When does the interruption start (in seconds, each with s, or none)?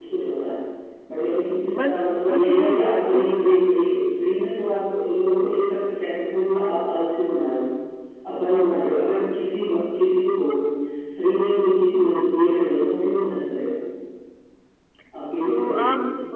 1.8 s